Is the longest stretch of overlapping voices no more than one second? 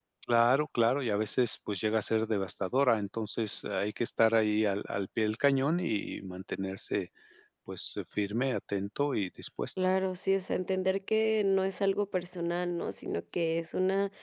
Yes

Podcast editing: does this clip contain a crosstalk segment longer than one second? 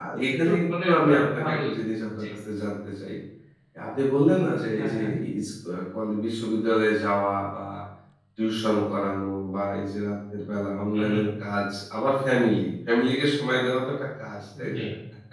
Yes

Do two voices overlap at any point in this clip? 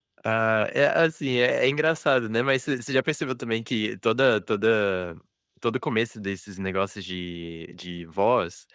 No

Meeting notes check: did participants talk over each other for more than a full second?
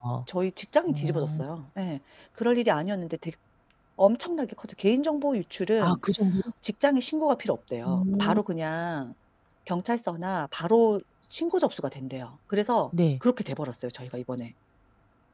No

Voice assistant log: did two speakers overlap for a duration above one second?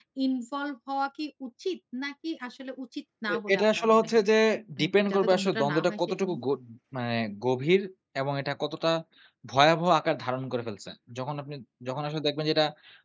Yes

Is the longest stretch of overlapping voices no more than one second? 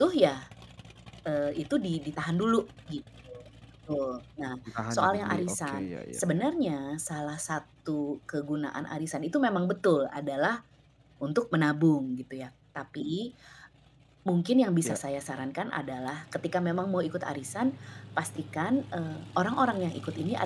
No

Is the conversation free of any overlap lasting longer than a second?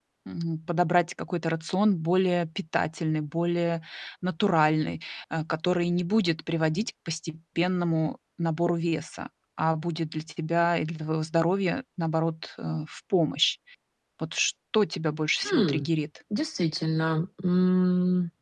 Yes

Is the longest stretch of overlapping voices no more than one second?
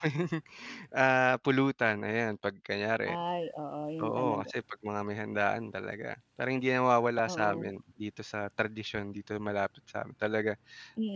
Yes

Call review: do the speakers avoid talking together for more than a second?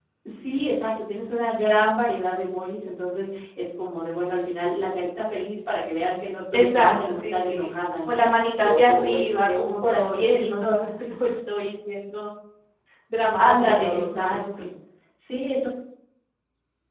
No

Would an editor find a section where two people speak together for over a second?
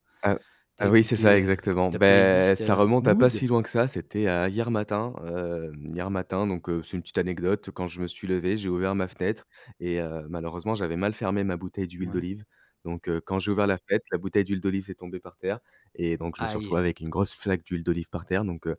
Yes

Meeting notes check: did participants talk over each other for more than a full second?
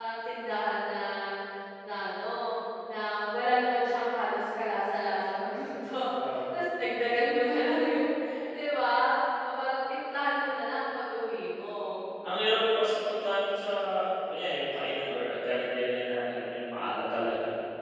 No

